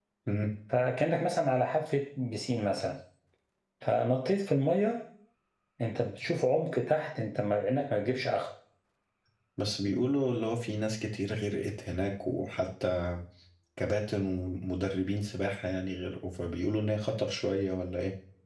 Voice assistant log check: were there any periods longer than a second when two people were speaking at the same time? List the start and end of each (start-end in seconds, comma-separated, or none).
none